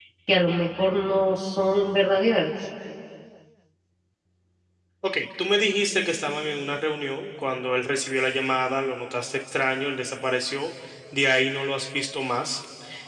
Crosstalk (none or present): none